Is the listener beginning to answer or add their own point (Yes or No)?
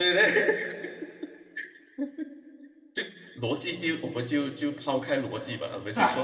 No